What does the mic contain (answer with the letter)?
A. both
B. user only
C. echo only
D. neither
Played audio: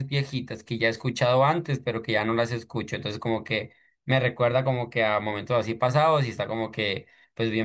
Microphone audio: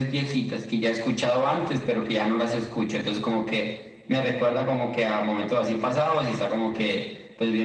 C